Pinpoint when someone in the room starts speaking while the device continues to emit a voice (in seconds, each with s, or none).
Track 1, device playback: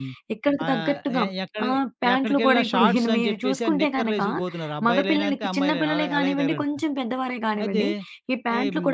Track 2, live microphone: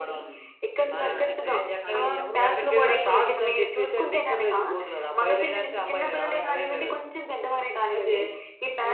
0.9 s